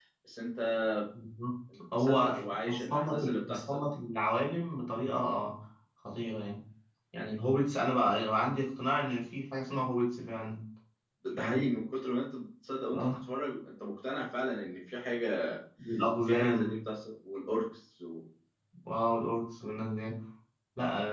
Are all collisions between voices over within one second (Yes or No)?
No